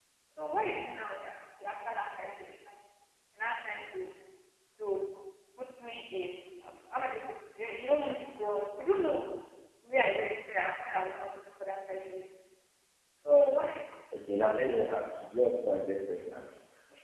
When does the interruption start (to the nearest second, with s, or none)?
none